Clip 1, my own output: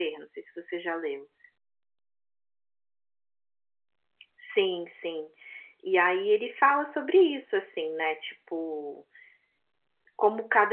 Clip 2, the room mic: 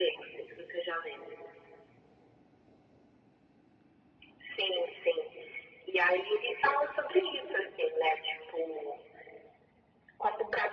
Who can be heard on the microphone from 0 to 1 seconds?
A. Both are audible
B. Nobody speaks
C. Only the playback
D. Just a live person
C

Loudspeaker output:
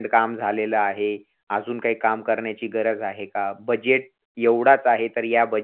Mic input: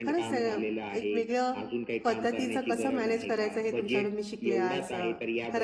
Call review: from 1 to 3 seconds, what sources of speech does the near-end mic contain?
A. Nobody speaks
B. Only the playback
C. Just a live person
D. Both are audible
D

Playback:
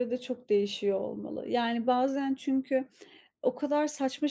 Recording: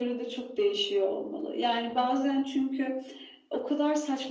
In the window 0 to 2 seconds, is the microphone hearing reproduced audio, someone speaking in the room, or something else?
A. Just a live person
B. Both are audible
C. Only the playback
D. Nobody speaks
C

